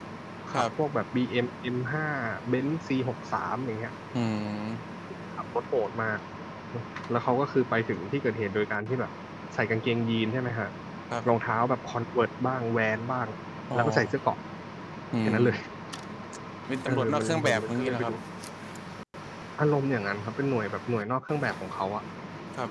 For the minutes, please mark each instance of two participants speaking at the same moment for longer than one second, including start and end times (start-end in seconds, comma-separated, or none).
16.9-18.1